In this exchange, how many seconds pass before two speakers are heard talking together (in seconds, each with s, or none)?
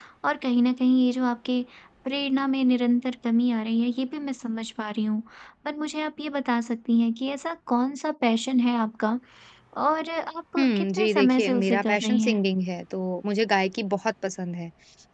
10.6 s